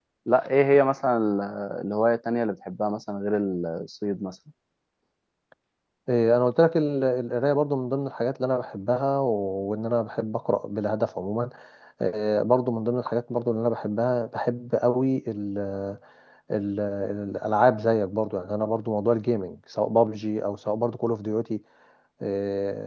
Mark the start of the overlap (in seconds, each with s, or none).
none